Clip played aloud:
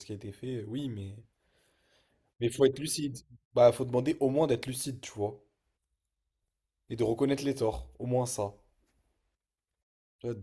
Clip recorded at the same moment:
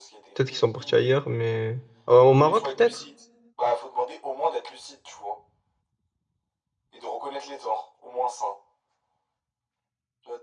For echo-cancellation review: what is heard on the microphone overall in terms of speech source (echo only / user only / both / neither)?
both